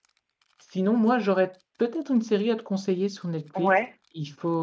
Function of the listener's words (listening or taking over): listening